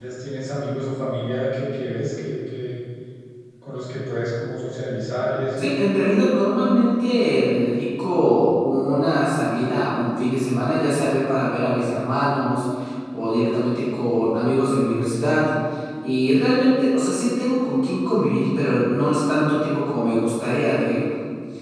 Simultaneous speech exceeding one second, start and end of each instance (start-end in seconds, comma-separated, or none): none